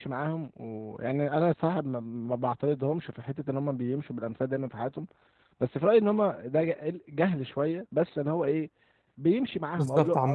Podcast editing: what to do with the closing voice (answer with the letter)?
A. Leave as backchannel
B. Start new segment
B